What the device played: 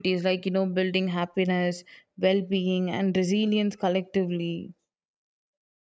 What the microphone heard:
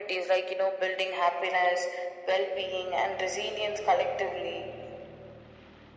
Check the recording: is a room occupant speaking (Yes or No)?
No